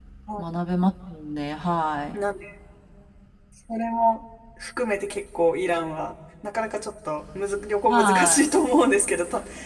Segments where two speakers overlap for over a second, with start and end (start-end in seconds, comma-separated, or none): none